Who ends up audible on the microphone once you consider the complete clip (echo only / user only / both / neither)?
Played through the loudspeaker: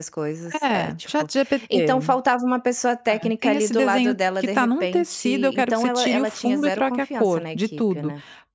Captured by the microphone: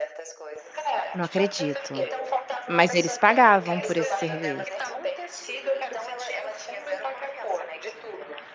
both